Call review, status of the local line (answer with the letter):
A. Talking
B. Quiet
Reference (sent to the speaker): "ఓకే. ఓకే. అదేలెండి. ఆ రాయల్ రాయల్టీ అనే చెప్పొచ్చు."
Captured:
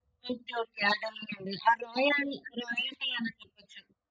B